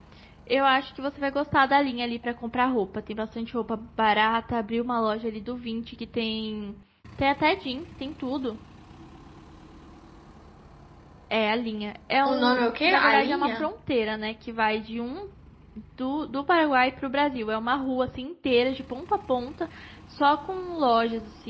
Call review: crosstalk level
present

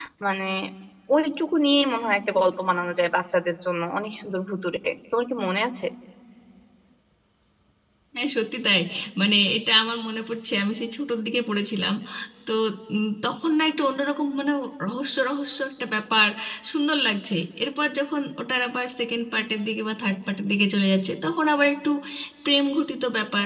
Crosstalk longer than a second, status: none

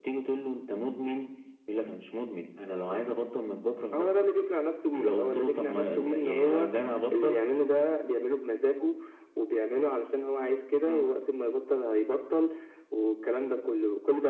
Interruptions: present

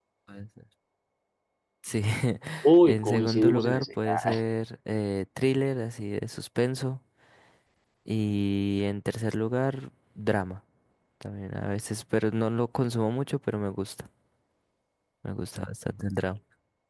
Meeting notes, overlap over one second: present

